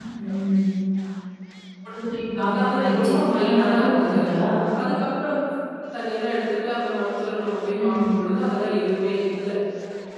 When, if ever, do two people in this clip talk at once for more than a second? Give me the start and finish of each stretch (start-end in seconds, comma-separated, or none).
2.5-4.2